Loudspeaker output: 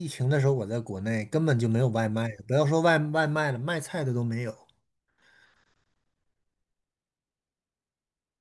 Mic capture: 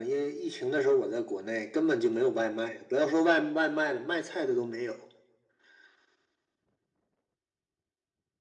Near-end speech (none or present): none